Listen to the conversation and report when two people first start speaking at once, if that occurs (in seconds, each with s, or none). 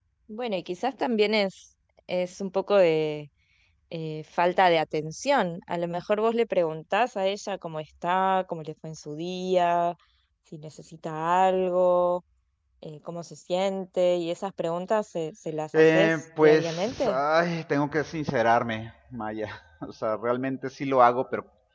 15.7 s